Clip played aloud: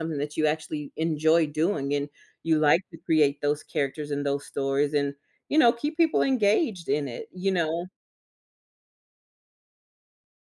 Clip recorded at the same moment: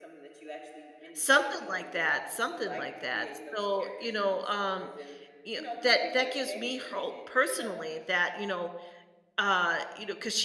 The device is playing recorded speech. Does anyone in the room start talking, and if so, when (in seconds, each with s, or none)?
1.1 s